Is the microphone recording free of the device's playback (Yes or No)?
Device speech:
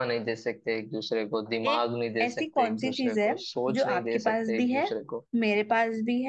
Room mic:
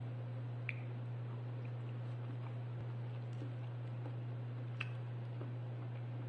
Yes